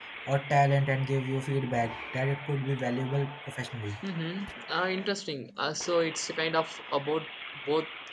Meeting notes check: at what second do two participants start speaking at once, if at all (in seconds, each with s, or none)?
none